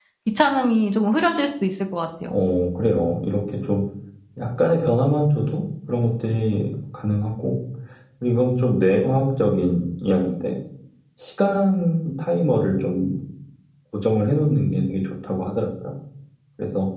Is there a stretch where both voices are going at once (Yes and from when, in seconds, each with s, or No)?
No